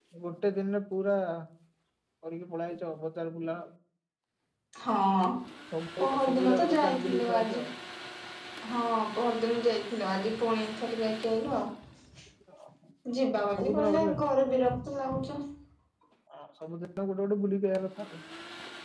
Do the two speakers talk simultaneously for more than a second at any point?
Yes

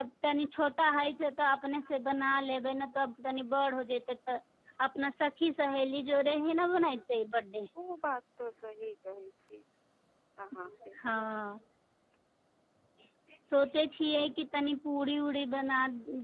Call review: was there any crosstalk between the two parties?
No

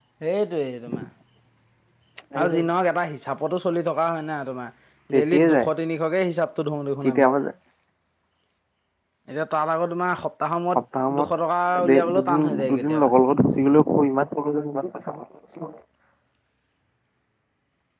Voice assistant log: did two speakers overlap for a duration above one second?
Yes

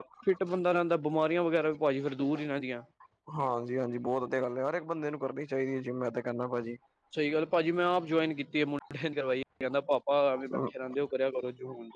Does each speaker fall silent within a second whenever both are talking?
Yes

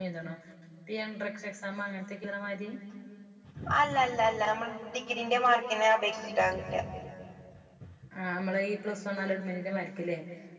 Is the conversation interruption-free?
Yes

